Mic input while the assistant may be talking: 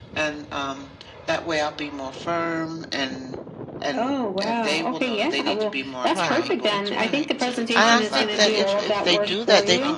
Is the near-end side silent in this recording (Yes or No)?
No